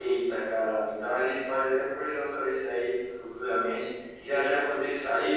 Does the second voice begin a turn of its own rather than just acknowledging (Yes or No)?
No